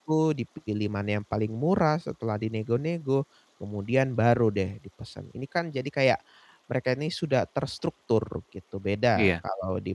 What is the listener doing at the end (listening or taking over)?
listening